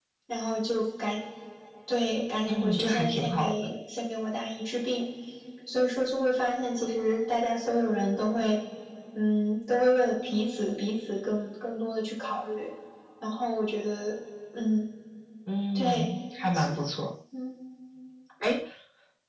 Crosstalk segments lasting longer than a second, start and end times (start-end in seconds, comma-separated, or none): 2.5-3.7